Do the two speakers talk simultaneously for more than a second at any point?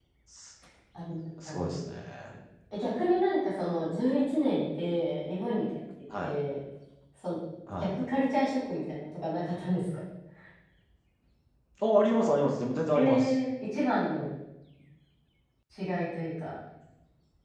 No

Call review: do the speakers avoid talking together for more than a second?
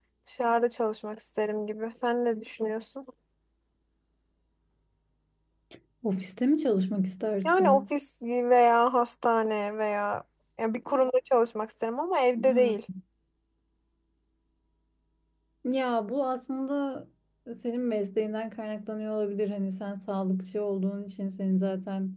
Yes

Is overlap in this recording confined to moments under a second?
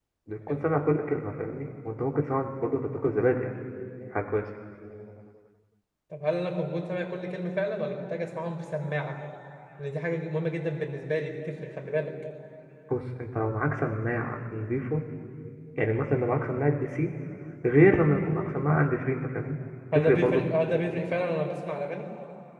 Yes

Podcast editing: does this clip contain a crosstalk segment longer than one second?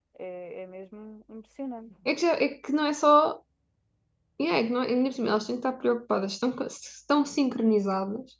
No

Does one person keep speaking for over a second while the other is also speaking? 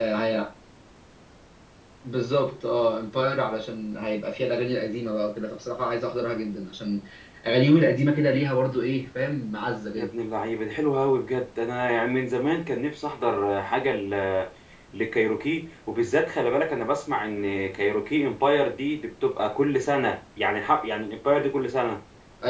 No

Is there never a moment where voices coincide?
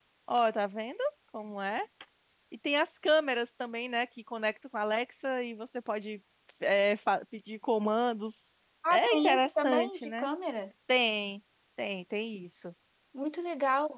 No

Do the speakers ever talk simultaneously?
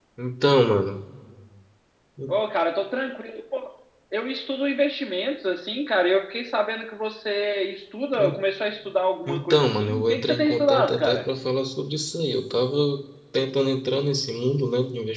Yes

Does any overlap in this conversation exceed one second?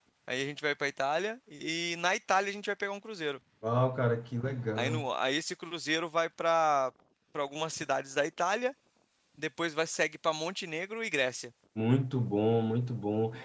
No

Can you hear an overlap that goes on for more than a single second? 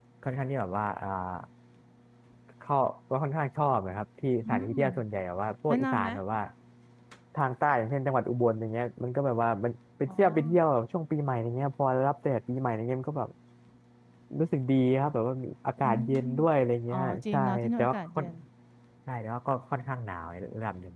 Yes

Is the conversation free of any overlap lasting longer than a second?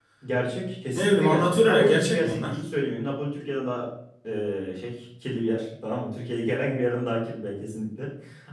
No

